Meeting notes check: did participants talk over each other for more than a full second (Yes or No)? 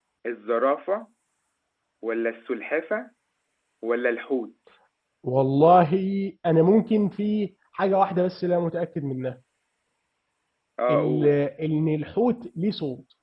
No